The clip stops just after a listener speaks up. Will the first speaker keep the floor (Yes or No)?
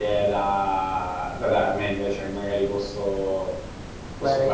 No